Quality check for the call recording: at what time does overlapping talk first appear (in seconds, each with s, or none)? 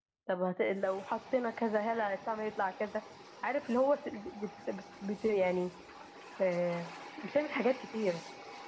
none